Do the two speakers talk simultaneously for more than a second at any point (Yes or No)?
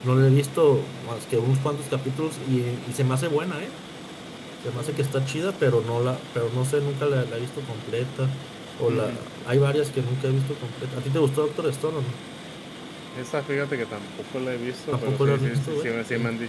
Yes